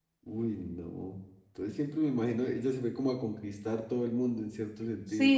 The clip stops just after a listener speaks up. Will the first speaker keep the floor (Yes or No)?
No